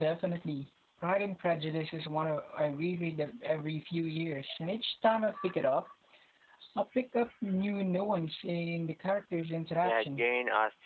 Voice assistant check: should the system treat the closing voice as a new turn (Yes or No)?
Yes